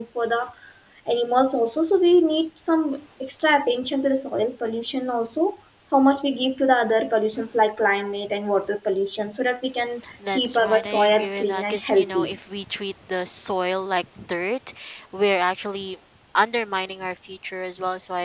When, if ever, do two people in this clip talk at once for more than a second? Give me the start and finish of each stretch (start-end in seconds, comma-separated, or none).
10.3-12.3